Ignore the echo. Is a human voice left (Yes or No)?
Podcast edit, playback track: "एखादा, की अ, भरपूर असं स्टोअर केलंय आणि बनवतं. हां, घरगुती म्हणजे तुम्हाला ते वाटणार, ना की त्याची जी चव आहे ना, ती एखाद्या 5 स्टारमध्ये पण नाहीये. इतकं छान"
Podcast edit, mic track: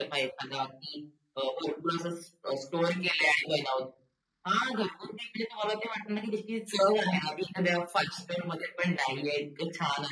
No